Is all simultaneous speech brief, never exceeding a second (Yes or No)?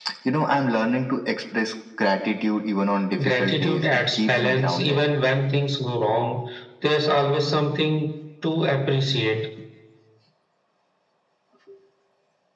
No